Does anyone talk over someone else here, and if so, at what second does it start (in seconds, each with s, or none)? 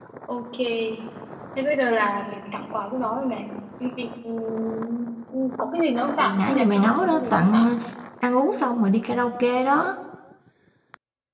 6.2 s